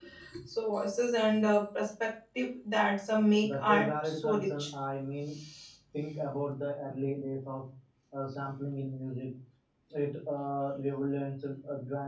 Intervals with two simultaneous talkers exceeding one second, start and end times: 3.4-4.6

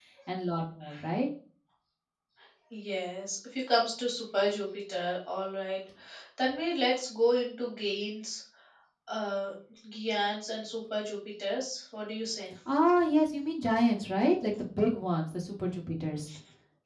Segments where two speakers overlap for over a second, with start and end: none

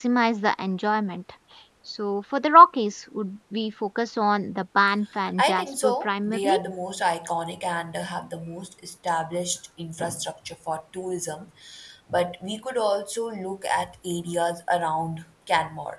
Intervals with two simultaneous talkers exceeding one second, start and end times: 5.4-6.6

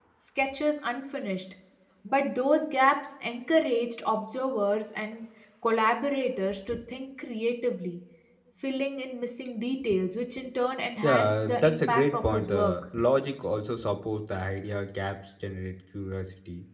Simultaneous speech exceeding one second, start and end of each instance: 11.0-12.7

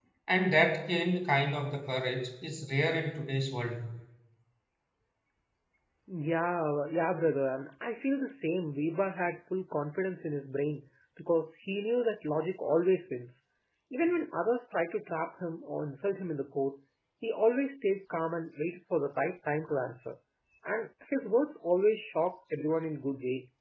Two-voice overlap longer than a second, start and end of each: none

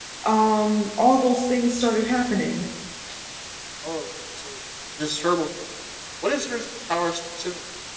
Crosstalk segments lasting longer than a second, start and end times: none

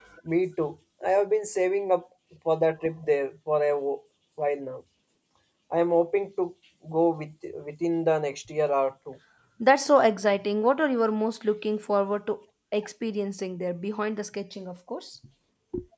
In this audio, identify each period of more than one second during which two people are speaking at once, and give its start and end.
none

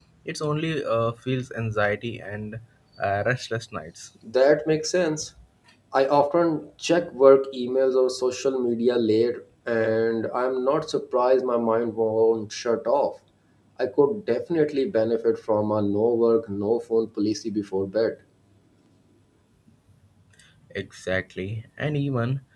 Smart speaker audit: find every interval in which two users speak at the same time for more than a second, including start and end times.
none

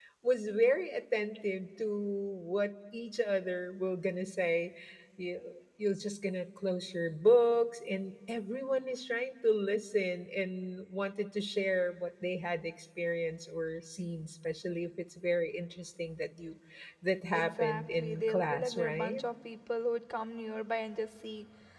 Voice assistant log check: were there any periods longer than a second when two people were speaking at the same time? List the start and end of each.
17.3-19.2

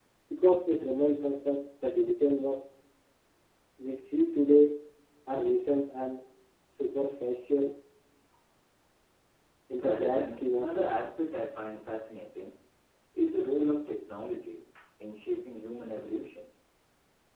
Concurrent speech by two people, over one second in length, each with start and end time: 9.8-11.1

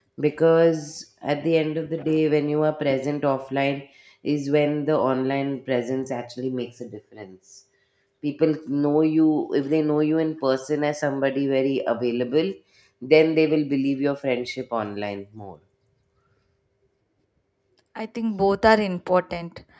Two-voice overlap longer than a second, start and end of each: none

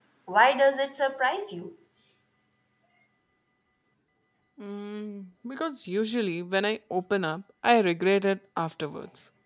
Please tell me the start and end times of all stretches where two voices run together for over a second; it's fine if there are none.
none

